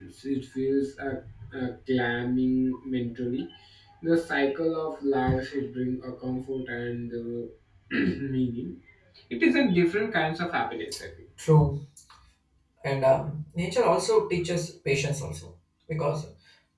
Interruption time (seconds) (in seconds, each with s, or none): none